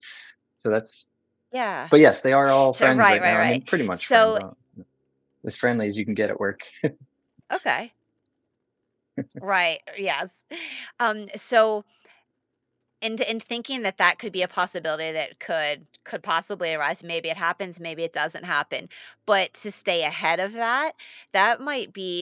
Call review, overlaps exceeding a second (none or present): present